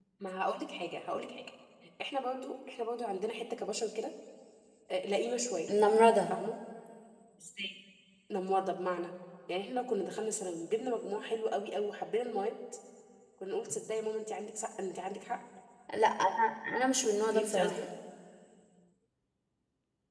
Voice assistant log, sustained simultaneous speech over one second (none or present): none